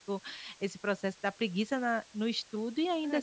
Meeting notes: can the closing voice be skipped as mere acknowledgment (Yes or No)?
No